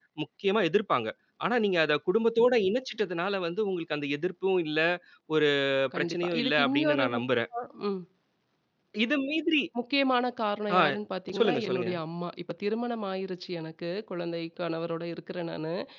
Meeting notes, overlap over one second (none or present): present